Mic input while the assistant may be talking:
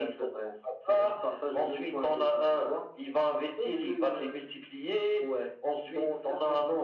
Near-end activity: none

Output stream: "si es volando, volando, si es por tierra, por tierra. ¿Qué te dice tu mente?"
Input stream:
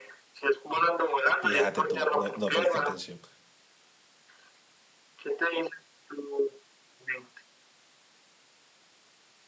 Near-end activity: present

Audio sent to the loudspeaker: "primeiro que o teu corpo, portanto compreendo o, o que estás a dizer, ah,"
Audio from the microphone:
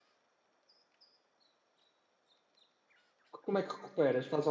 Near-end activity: present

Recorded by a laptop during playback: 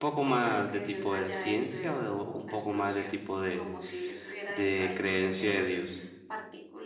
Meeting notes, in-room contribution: present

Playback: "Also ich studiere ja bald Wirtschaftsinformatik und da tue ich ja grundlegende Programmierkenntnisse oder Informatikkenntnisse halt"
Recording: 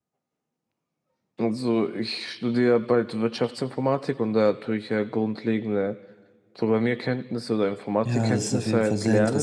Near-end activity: present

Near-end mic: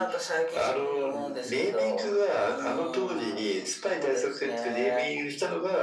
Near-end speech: none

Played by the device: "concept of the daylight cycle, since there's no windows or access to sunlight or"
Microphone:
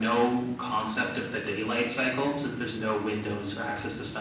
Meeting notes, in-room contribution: none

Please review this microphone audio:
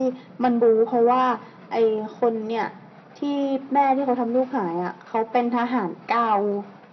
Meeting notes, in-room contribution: none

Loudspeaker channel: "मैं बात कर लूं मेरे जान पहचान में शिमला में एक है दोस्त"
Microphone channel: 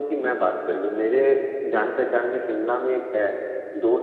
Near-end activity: none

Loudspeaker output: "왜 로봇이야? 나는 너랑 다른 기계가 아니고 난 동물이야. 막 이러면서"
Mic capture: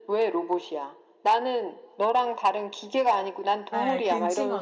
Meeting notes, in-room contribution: present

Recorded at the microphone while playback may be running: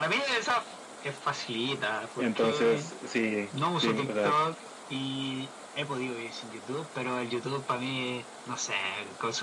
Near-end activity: present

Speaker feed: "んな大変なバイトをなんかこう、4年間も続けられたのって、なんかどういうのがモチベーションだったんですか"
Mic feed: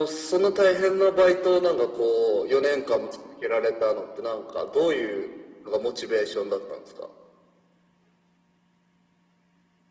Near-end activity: none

